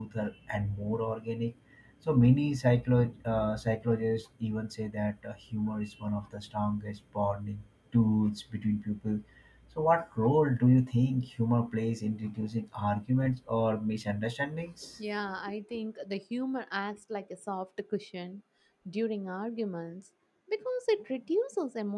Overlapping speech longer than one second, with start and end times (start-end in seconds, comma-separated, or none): none